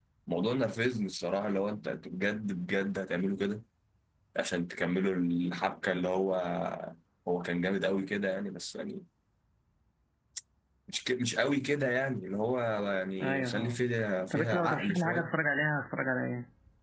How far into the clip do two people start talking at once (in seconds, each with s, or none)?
13.2 s